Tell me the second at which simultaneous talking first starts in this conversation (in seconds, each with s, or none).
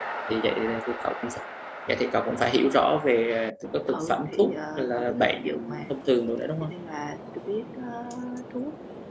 3.9 s